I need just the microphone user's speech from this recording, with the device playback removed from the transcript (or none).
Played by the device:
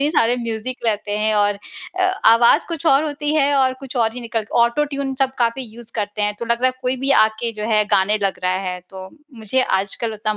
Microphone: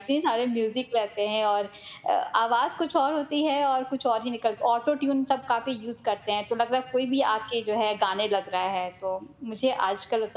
none